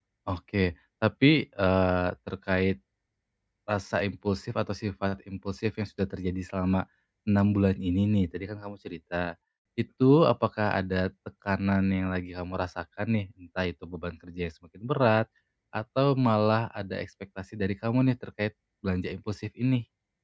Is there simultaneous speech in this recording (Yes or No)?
No